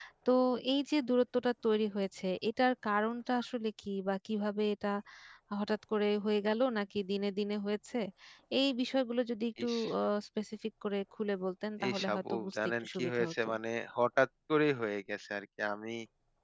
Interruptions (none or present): present